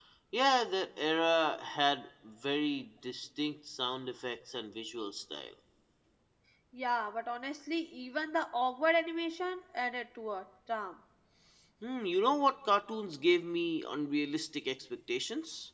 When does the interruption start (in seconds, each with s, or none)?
none